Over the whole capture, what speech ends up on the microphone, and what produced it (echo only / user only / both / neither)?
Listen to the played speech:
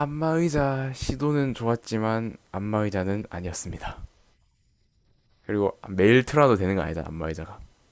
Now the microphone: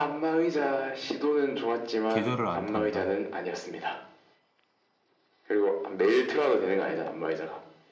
both